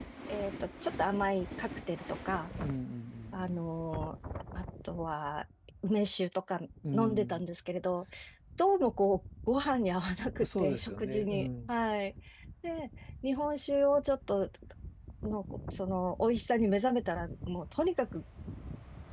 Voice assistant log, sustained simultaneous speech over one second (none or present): present